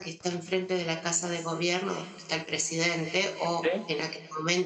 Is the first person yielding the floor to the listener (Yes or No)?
No